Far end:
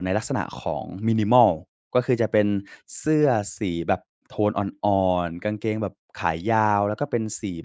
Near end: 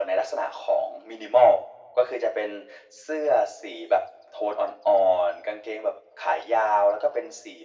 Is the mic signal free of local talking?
Yes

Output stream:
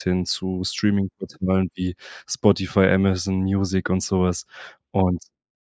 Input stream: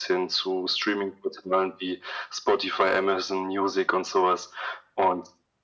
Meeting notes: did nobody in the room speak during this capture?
Yes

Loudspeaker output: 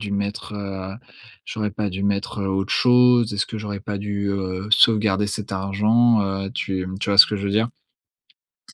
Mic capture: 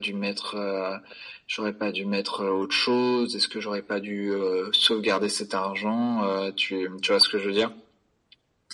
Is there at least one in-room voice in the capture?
No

